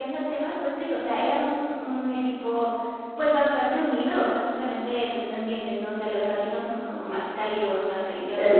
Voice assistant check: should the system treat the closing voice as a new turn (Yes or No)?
No